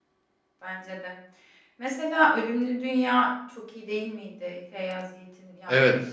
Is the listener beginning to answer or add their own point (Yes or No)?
Yes